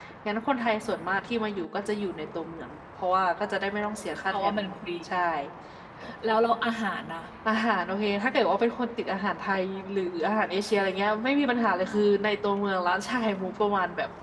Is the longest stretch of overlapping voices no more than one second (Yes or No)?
Yes